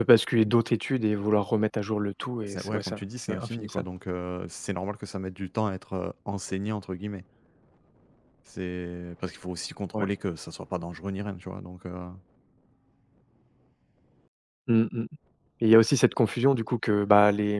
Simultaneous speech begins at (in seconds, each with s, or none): 2.4 s